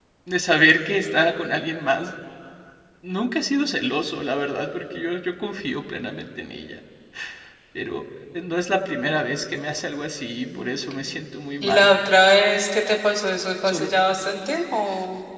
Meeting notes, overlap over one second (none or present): none